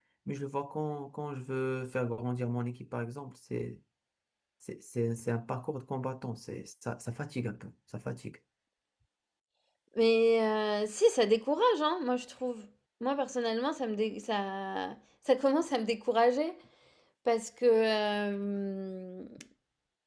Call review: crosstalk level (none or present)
none